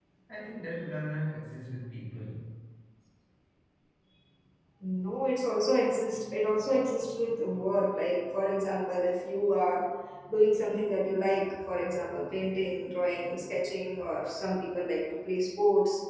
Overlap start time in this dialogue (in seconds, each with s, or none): none